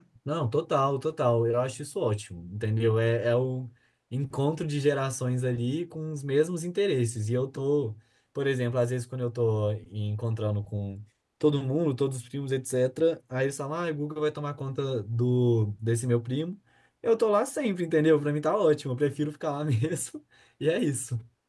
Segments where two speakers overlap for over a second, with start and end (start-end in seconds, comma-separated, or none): none